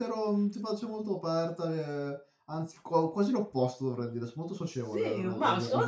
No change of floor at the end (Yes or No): No